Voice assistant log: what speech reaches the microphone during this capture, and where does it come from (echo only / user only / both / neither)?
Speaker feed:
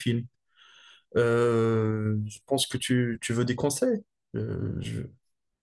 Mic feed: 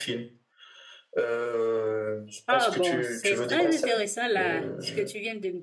both